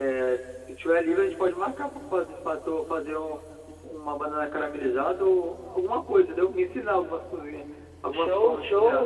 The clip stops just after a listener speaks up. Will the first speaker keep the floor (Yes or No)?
No